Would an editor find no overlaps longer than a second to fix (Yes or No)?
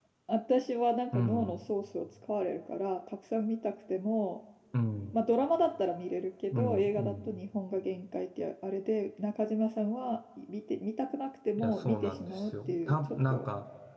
No